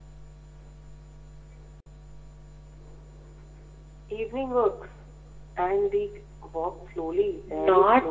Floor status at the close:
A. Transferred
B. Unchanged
A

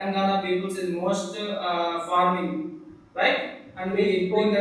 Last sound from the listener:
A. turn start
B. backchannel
A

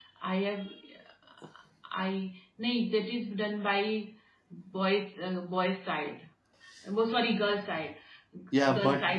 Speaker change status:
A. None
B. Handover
A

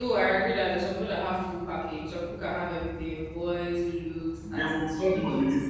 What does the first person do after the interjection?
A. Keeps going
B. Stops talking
B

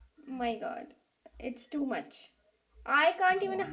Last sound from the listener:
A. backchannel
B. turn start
A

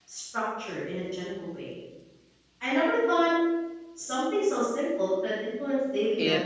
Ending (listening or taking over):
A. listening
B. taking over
B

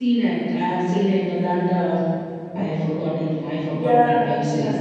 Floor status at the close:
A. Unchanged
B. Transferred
B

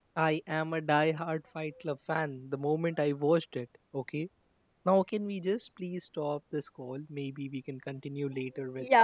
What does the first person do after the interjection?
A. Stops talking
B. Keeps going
A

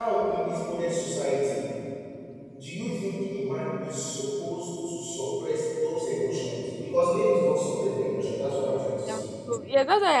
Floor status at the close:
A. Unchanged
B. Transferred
B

